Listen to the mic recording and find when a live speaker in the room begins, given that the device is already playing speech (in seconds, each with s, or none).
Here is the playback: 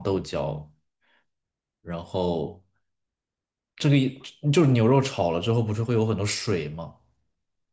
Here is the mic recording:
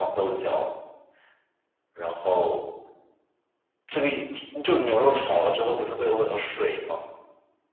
none